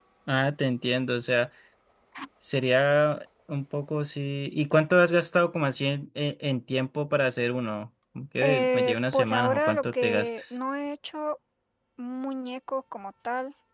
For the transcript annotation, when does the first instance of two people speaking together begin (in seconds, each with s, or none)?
8.4 s